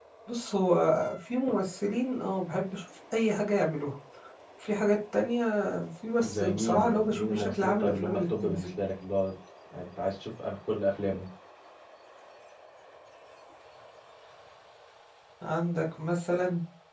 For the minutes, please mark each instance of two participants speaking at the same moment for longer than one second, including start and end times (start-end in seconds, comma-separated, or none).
6.2-8.7